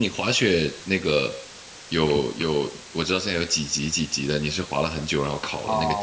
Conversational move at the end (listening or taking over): taking over